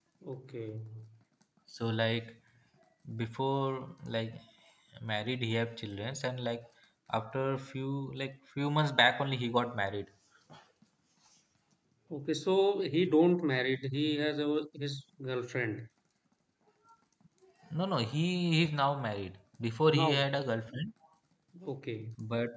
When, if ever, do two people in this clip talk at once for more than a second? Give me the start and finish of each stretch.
none

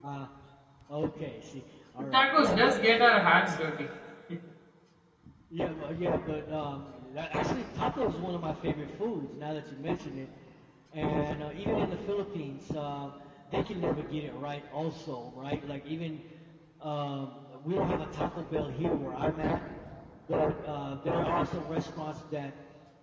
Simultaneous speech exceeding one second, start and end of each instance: 2.0-3.2

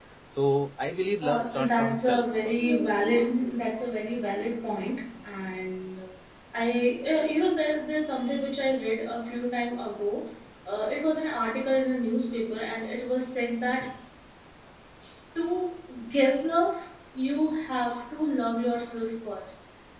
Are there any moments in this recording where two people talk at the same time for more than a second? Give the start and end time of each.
1.2-2.8

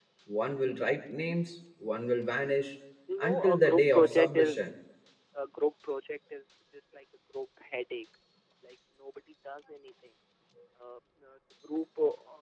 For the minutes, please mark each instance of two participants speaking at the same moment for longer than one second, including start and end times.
3.2-4.6

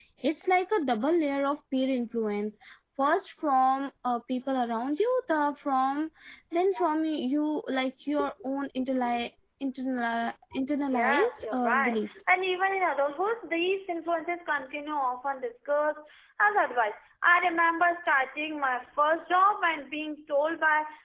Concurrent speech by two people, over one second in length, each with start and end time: 10.9-12.1

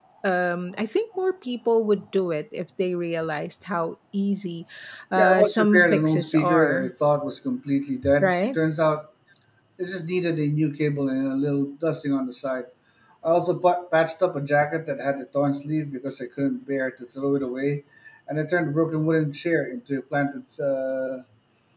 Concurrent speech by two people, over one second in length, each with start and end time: 5.2-6.9

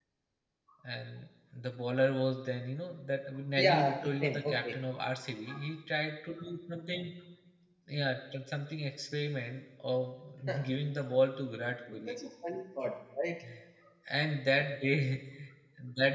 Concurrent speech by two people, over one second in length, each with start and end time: 3.6-4.8

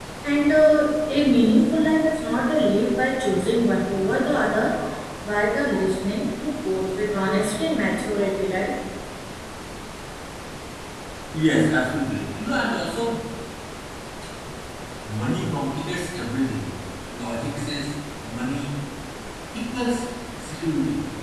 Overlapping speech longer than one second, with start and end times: none

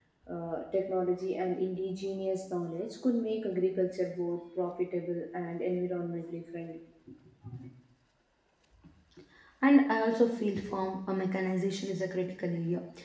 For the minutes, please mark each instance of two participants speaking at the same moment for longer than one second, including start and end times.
none

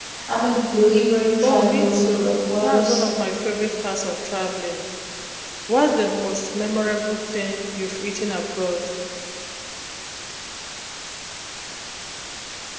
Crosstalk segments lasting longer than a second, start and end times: 1.4-3.0

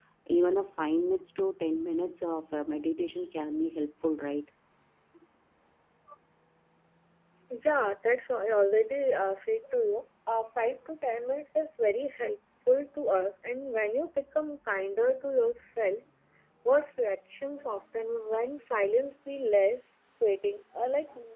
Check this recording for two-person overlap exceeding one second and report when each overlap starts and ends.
none

